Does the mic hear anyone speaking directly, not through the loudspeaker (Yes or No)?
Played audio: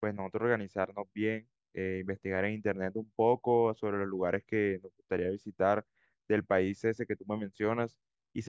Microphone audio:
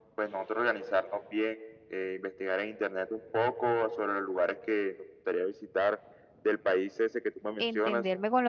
Yes